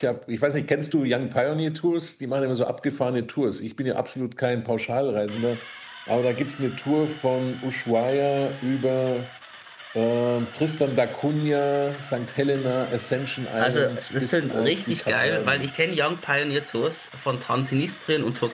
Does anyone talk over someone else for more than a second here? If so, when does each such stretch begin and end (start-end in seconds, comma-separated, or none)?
13.6-15.7